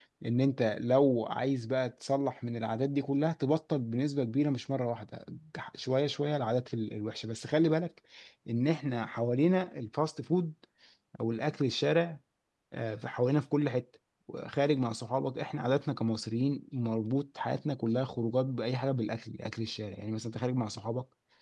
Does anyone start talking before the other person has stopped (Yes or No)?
No